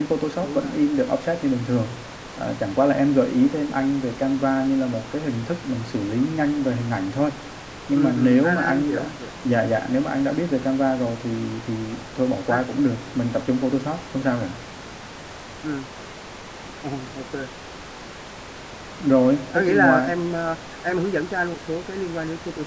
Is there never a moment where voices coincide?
No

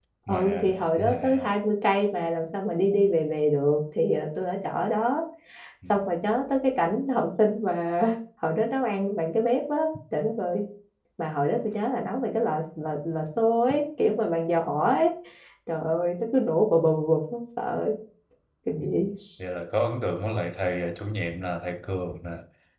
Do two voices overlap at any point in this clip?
Yes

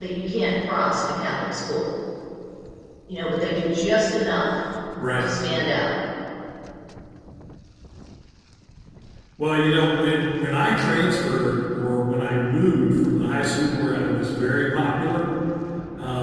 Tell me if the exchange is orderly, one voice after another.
Yes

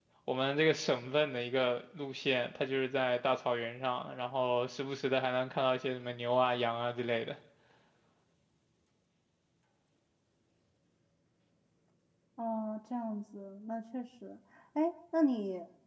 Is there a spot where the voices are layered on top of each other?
No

